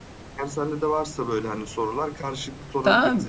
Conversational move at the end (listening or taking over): taking over